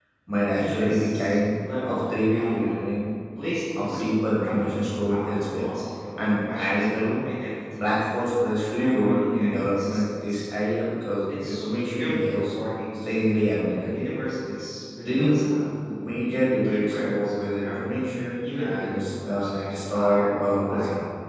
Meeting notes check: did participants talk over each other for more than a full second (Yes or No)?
Yes